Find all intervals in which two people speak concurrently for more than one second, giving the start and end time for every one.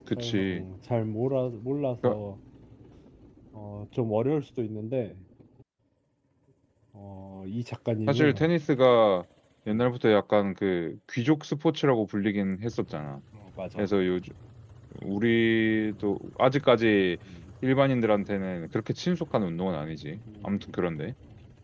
none

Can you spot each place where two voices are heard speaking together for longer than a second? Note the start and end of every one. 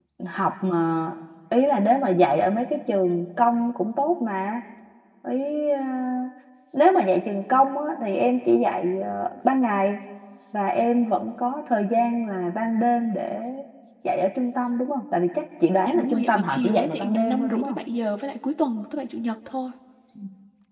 15.8-17.8

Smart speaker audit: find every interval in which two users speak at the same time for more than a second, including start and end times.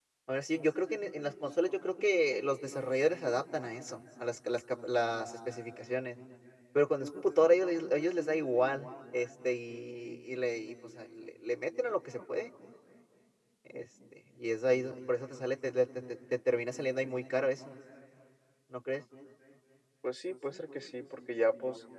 none

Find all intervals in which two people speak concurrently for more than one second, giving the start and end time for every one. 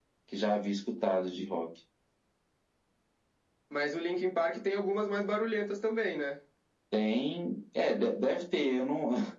none

